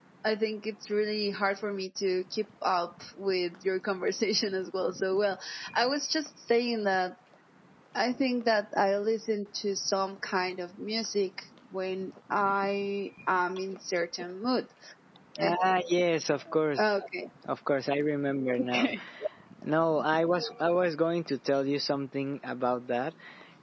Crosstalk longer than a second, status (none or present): none